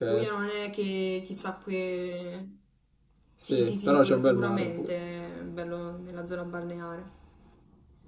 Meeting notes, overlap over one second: present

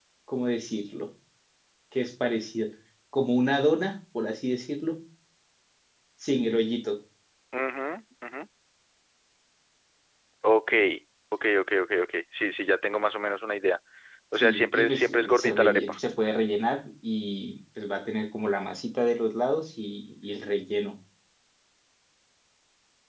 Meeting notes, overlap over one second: present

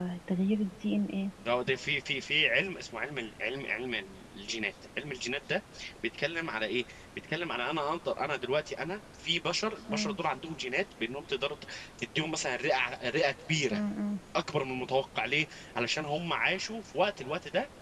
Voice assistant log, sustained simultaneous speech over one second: none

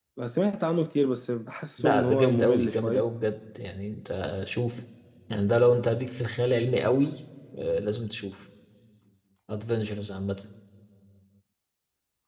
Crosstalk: present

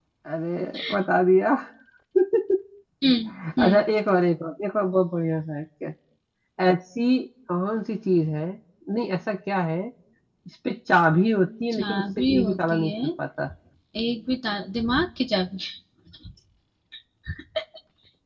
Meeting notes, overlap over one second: present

